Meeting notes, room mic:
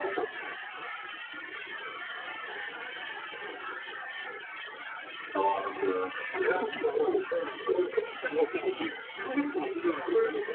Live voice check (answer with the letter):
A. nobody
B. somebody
A